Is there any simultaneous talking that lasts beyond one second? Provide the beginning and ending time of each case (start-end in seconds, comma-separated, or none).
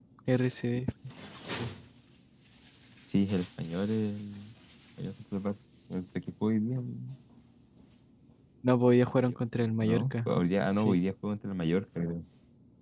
none